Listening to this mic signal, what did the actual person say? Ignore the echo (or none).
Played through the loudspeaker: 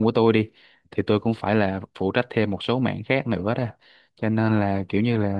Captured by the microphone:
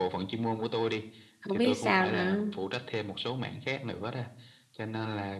không biết sao nữa.